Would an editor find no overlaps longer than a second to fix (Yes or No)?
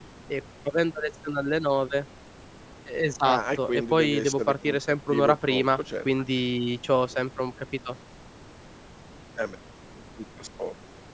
No